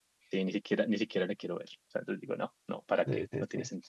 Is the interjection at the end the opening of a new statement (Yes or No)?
Yes